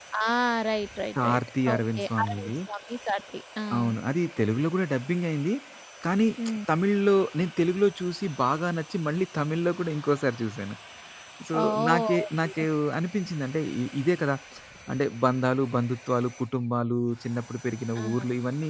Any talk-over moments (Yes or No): Yes